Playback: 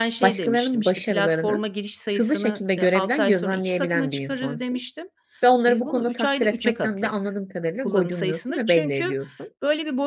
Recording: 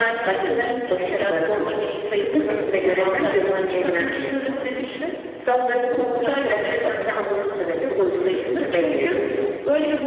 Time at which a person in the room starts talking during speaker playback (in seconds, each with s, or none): none